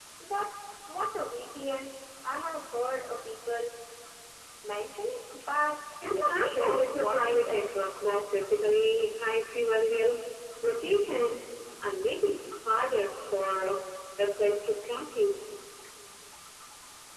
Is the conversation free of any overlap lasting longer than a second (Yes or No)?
No